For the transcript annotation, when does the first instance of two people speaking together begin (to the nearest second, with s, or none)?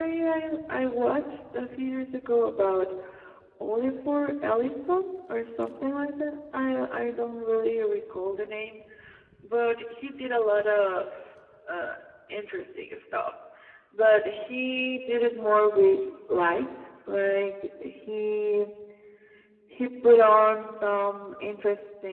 none